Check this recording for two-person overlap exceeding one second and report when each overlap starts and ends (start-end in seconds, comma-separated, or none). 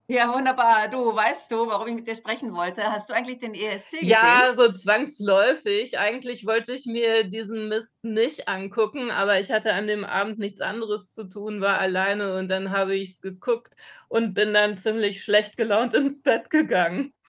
none